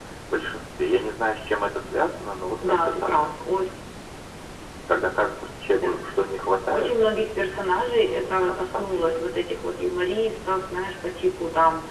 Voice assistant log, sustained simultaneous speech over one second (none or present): present